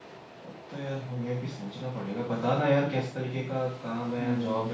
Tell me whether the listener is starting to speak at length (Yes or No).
No